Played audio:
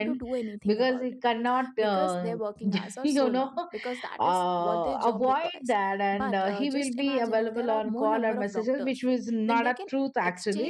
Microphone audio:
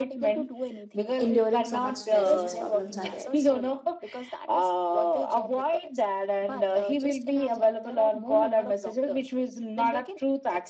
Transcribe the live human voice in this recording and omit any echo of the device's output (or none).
enduring so much stress these problems are there